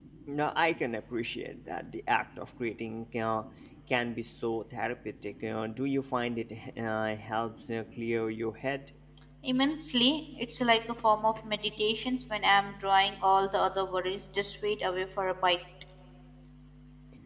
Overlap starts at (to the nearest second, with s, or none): none